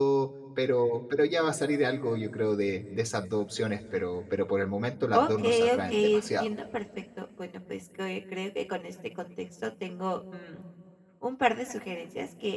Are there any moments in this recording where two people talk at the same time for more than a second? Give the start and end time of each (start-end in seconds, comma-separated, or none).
5.1-6.5